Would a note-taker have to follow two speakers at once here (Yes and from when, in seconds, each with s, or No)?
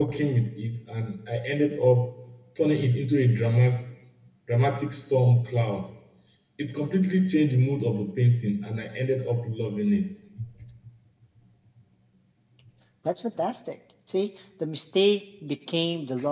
No